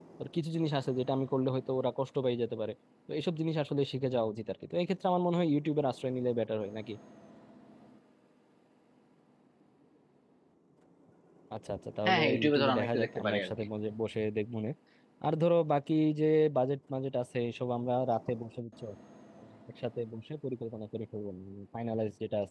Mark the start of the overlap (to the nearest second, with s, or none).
12 s